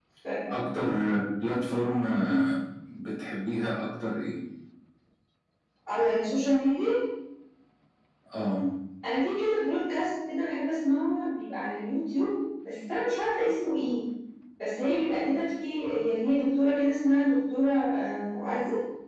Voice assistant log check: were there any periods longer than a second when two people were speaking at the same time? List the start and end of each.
none

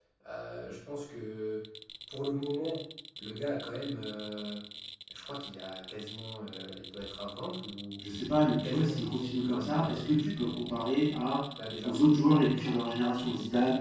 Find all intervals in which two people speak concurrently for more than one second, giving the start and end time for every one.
8.4-10.5

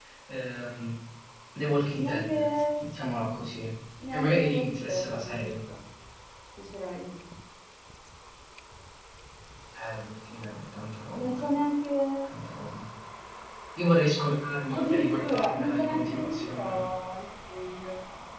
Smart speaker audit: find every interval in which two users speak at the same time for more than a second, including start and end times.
4.1-5.5, 14.7-16.8

